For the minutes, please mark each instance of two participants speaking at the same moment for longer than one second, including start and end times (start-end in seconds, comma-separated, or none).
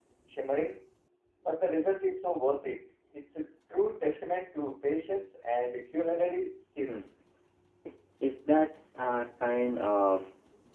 none